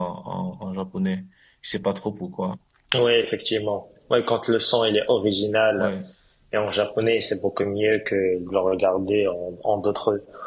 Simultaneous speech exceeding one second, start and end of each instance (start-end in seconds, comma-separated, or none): none